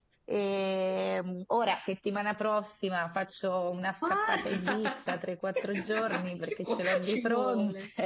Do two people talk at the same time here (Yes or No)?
Yes